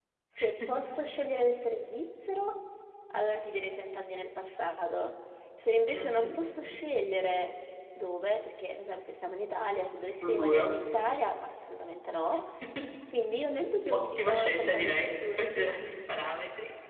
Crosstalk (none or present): present